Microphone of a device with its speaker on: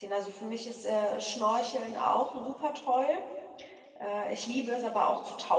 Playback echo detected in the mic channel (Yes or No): No